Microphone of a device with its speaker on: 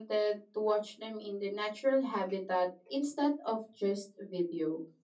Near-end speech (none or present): none